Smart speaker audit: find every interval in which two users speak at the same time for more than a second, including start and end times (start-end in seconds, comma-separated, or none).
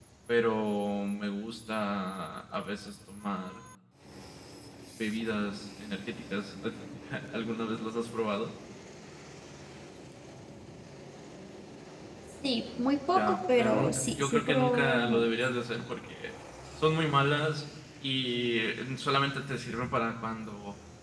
13.2-15.2